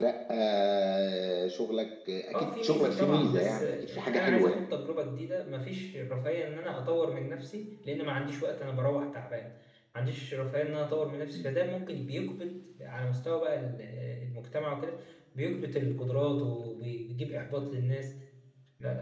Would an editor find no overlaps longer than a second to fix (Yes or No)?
No